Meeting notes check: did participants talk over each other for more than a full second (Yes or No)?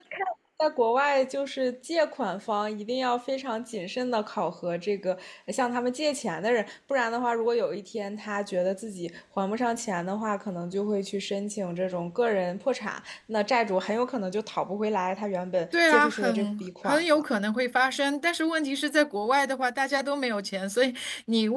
Yes